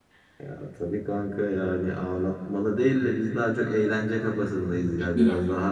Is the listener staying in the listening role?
Yes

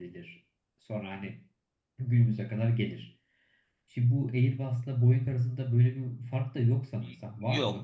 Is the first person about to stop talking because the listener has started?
Yes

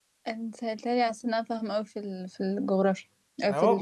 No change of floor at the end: No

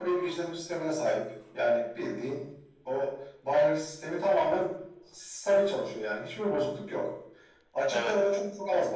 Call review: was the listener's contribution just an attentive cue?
Yes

